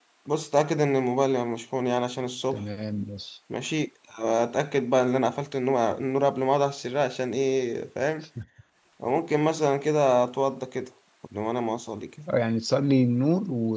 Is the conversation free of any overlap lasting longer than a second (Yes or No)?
Yes